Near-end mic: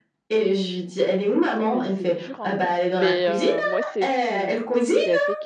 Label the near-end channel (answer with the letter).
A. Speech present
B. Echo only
A